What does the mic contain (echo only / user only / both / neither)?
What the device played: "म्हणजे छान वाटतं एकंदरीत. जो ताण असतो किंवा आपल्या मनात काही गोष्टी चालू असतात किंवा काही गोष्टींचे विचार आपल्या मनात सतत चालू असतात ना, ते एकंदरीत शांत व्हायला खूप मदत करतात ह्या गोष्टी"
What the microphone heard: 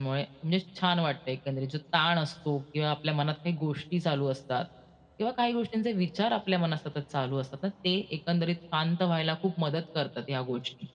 echo only